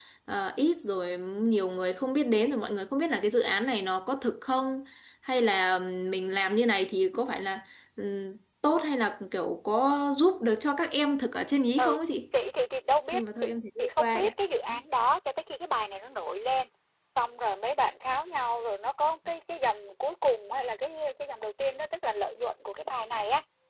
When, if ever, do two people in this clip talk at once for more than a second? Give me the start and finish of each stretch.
13.1-14.3

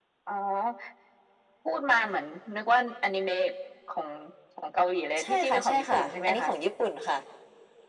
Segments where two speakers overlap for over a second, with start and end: 5.2-6.5

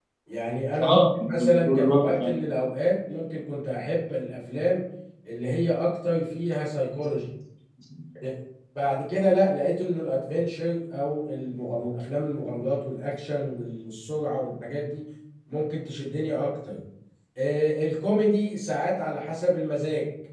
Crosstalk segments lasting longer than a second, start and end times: 0.8-2.4

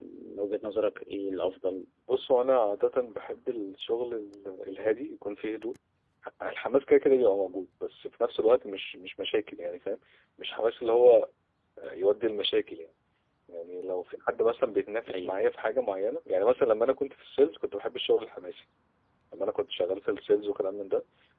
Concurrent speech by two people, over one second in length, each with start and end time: none

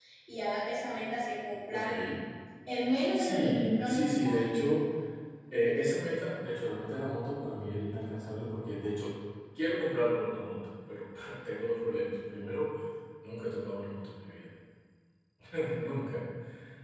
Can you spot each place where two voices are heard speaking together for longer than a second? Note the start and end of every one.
3.1-4.4

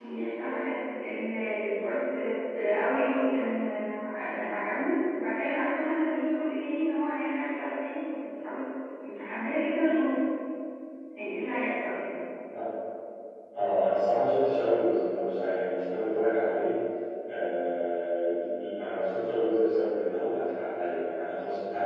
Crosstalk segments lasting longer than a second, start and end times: none

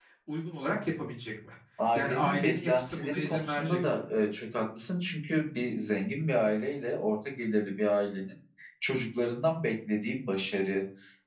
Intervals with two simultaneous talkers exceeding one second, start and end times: 2.0-3.8

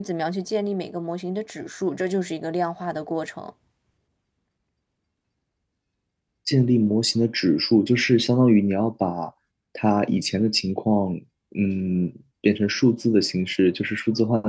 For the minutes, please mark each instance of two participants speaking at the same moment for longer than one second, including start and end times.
none

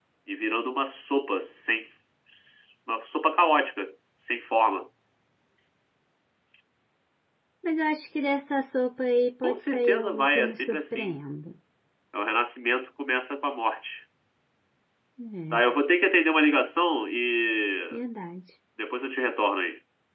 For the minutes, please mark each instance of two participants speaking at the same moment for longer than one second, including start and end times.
9.4-11.1

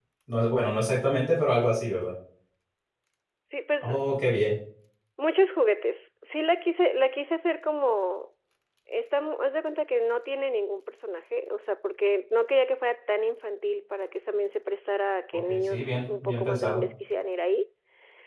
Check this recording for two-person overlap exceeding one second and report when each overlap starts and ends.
15.5-16.8

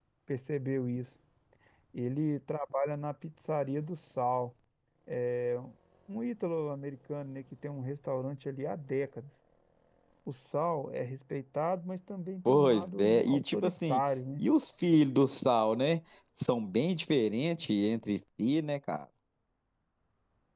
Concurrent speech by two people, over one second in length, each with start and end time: 12.4-14.0

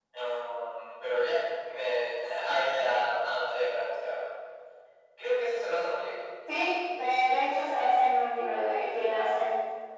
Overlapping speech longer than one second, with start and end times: none

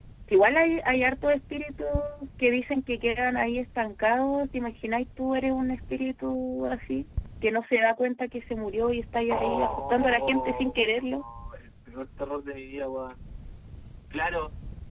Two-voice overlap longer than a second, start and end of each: 9.3-11.2

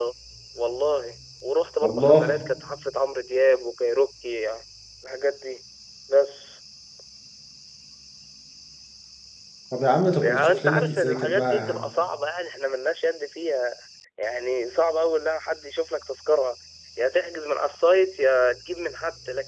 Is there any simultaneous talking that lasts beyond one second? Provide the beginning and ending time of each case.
10.2-11.9

